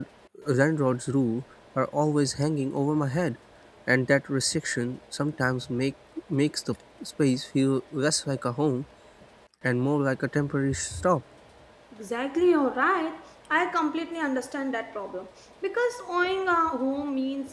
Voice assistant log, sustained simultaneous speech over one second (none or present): none